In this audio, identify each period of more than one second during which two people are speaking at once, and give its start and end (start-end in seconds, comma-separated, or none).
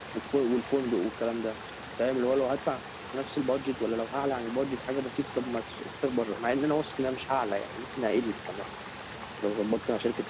none